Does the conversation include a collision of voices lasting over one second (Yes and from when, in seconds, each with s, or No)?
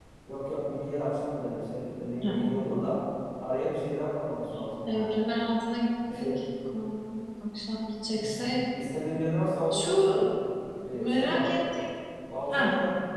No